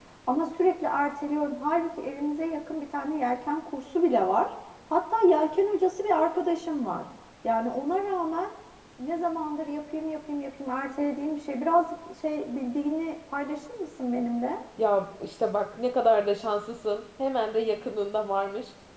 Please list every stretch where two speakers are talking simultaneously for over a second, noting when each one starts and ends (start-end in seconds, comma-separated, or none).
none